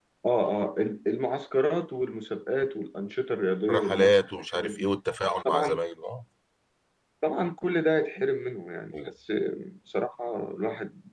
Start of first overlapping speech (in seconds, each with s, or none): 3.7 s